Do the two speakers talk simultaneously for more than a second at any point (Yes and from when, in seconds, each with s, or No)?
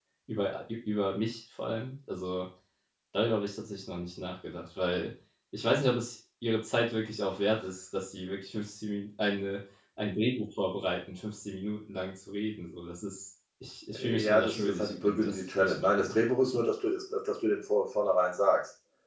Yes, from 13.9 s